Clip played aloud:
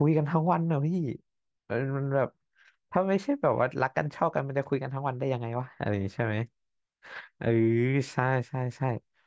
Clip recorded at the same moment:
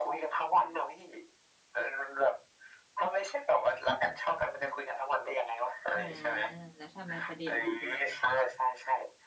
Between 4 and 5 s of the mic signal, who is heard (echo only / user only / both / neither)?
echo only